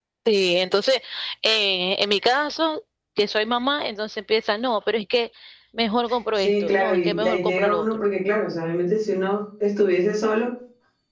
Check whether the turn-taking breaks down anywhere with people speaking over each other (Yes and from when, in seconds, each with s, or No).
Yes, from 6.4 s